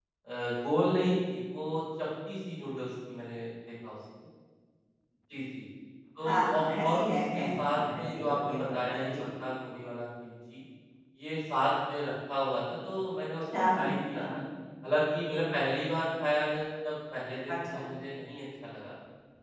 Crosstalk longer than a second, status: present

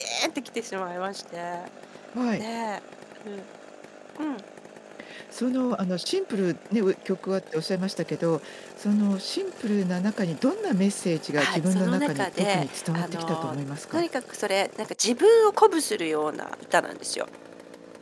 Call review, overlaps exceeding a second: present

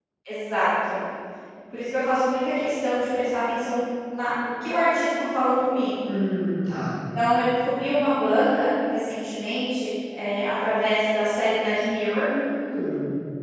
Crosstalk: none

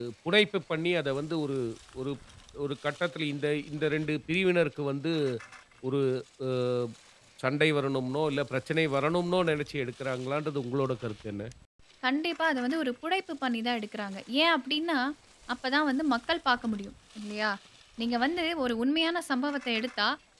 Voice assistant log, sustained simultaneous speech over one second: none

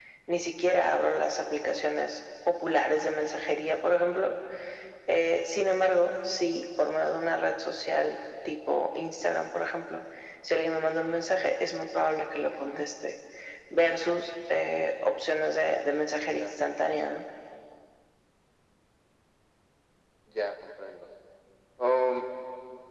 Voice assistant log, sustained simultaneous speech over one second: none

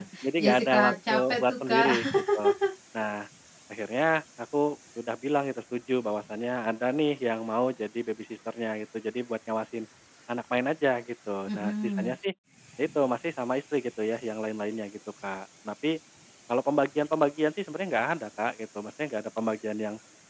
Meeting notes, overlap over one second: present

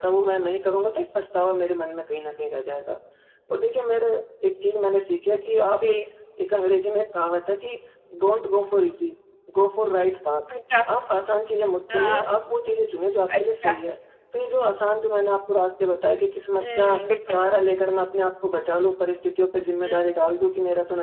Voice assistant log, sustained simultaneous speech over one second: none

